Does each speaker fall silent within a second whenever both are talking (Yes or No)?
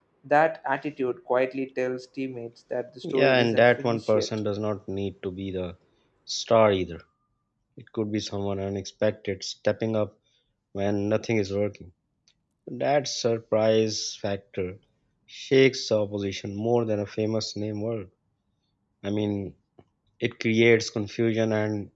No